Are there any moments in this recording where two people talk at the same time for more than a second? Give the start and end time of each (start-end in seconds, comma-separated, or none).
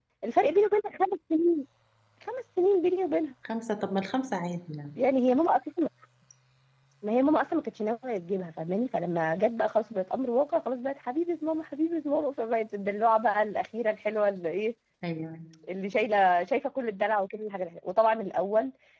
none